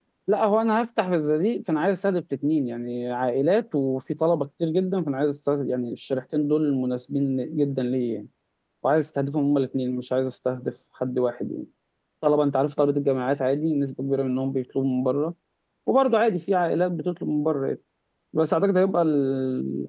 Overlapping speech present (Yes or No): No